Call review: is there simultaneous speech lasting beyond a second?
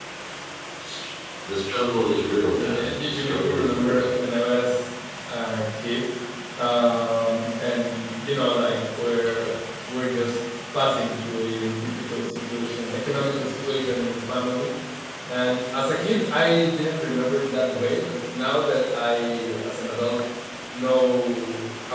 Yes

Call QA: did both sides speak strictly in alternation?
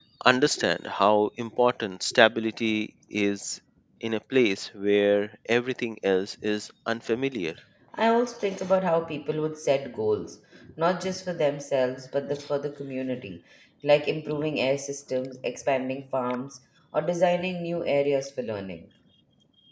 Yes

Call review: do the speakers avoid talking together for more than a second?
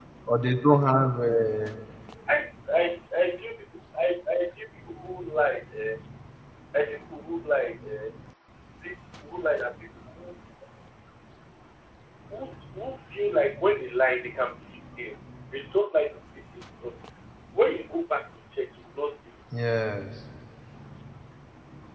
Yes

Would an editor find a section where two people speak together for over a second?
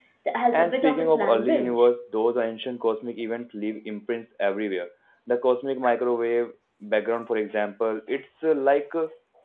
Yes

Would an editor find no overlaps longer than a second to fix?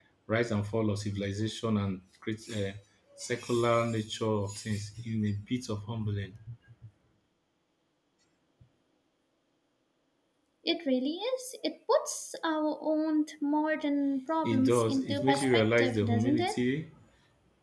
No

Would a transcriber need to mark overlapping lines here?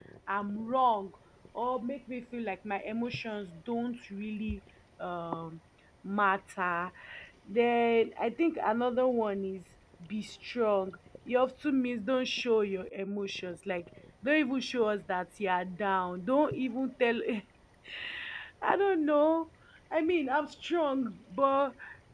No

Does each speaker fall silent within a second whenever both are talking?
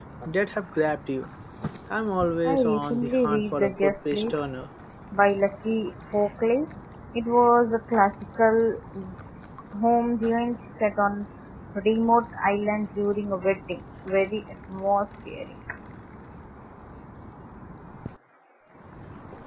No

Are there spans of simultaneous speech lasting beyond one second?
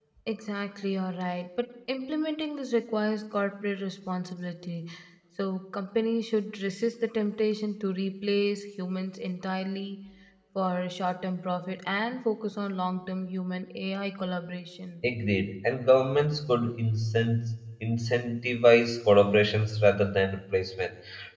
No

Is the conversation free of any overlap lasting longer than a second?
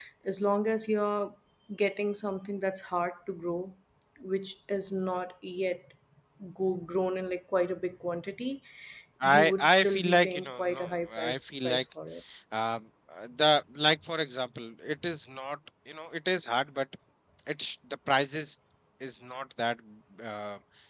No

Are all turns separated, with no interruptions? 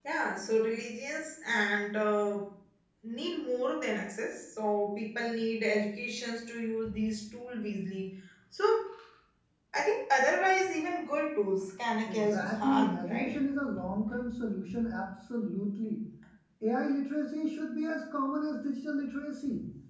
No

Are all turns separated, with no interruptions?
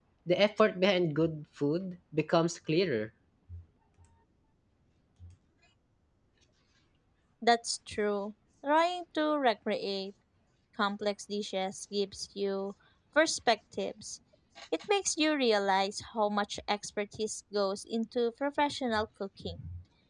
Yes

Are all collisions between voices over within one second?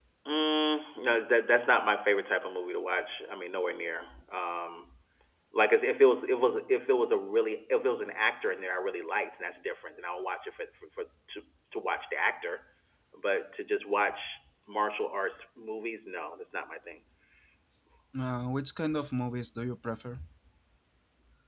Yes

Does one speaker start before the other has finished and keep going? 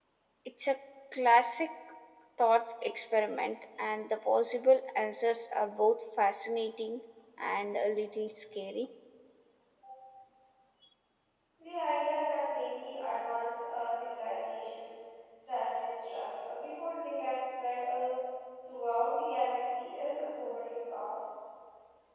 No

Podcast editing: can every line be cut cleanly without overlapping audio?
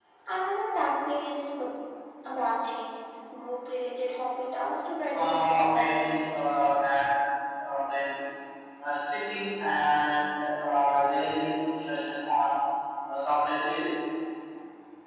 No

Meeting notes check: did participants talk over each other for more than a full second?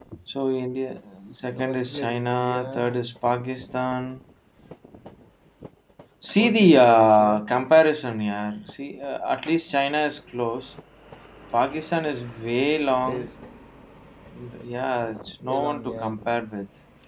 Yes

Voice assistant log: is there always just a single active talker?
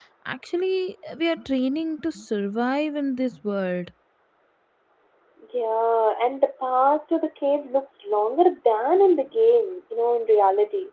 Yes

